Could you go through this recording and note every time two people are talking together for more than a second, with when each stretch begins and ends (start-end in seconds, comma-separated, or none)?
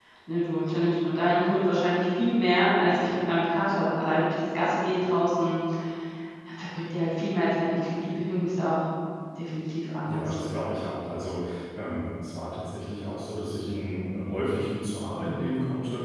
none